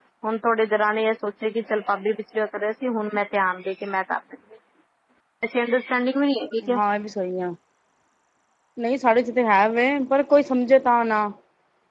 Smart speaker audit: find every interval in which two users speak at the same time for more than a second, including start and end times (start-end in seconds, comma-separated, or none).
none